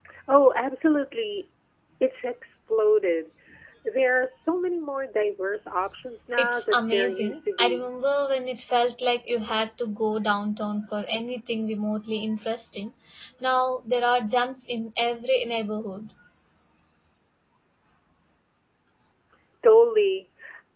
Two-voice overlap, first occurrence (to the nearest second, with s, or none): 6 s